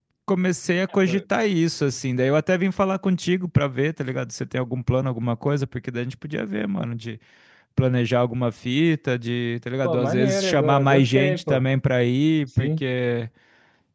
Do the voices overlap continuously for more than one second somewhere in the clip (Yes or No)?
Yes